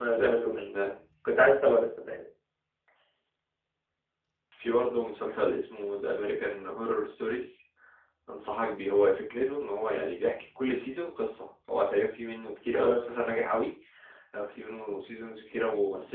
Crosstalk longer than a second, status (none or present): none